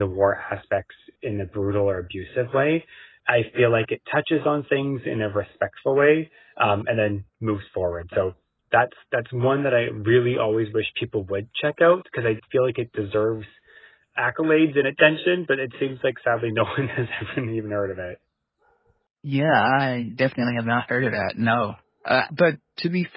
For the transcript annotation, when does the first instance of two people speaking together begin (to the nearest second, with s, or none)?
none